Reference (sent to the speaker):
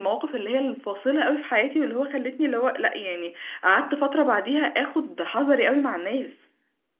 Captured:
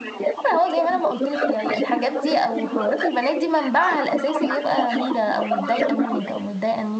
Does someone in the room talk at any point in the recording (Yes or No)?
Yes